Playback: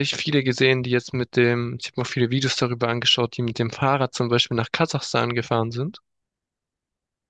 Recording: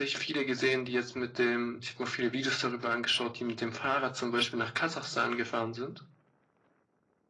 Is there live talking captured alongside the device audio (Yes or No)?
No